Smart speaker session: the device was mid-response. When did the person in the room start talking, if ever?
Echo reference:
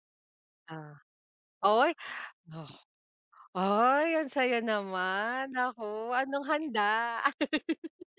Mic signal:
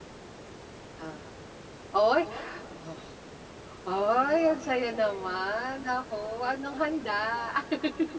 none

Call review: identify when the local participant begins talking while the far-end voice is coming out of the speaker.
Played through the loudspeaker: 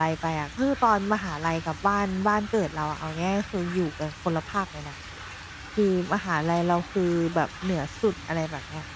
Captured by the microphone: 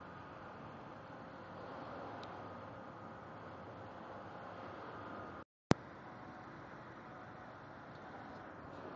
none

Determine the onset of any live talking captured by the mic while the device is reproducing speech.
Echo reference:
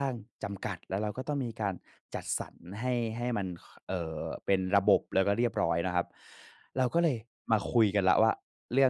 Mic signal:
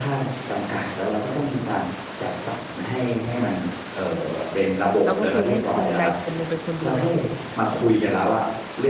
5.0 s

